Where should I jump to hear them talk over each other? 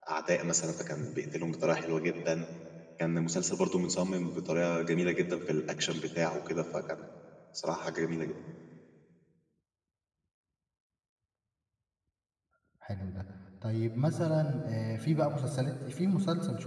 none

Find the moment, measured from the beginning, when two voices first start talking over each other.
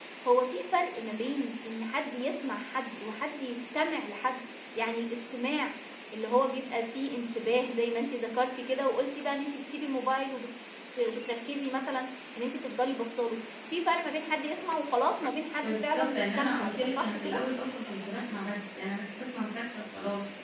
15.6 s

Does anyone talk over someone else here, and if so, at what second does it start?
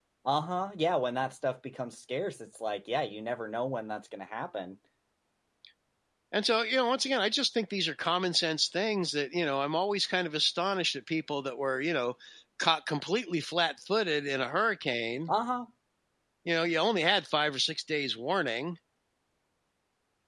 none

